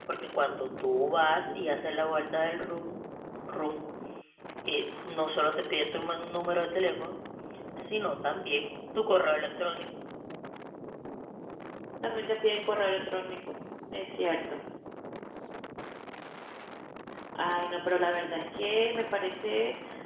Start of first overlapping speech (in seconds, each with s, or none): none